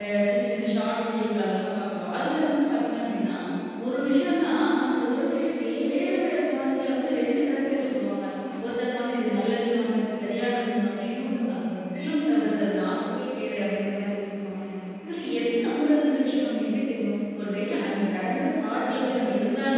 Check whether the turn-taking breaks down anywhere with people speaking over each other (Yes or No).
No